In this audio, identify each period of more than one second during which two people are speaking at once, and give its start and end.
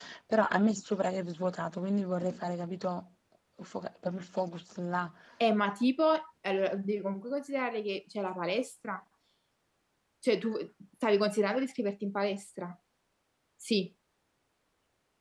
none

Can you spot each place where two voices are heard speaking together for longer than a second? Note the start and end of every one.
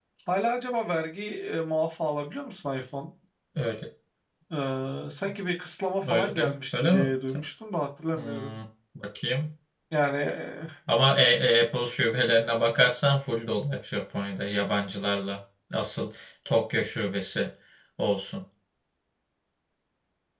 6.1-7.4

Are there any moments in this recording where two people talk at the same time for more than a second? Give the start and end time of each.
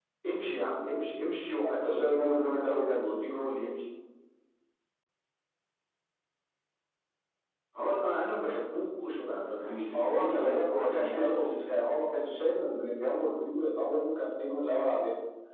1.6-3.0, 9.9-11.9

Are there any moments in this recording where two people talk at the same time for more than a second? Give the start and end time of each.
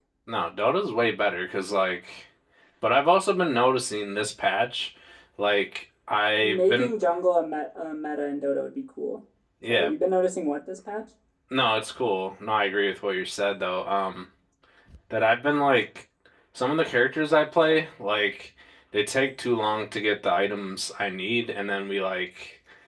none

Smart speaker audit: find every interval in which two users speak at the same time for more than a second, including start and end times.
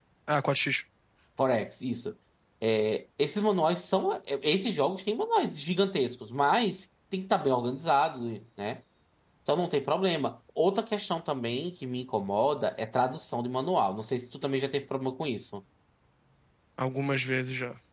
none

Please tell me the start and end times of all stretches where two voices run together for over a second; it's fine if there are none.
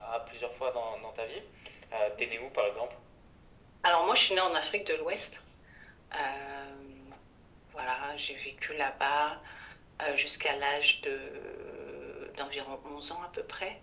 none

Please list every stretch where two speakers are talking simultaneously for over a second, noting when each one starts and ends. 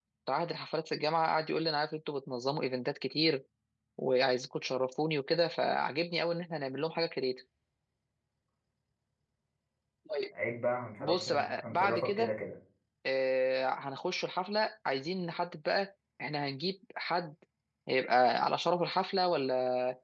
11.0-12.3

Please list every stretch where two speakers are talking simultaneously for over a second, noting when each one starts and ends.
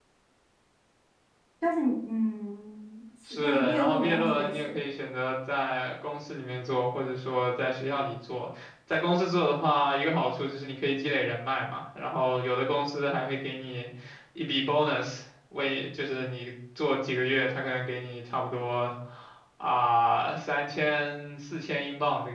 3.3-4.7

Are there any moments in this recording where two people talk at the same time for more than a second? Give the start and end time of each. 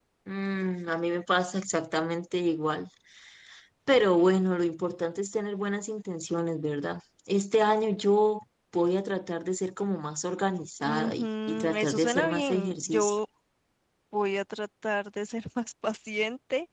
10.8-13.2

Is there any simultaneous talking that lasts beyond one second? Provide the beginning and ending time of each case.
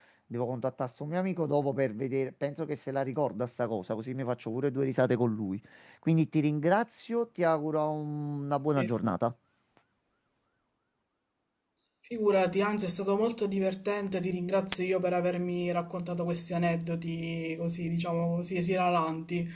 none

